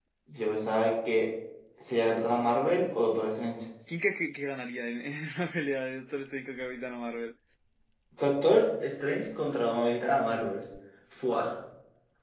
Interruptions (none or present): none